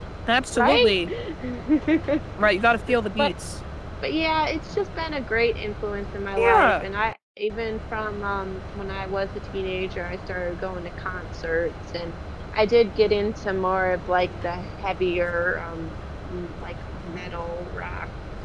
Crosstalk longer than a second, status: none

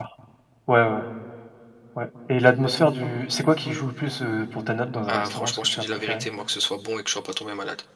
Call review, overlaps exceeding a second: present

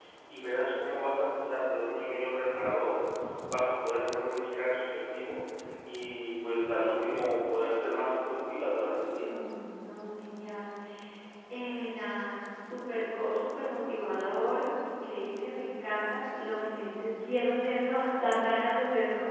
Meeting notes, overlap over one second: none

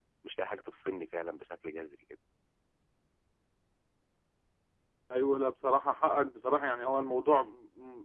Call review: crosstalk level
none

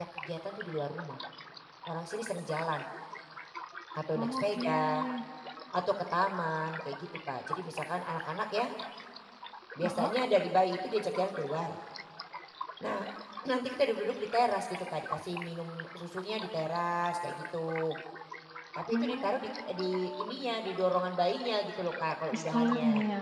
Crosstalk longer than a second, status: present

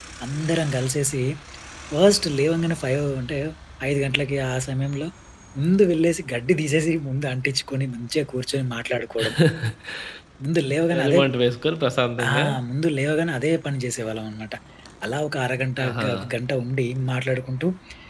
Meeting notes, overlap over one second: none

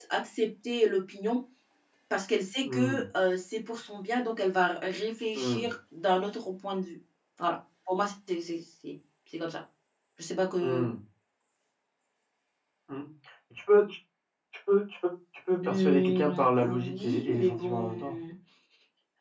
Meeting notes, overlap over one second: present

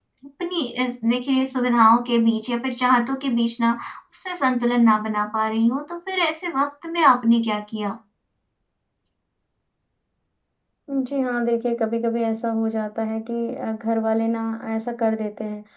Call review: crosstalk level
none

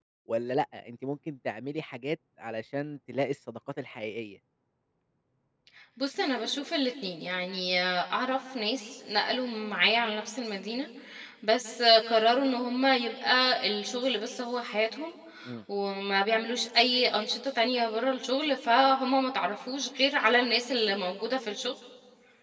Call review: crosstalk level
none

